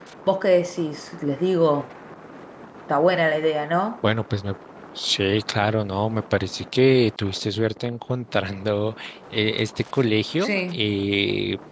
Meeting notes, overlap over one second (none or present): none